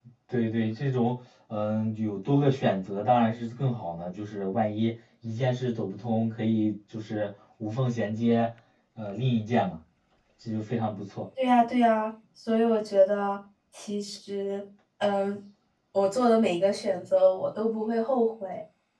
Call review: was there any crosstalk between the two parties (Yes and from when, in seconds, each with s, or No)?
No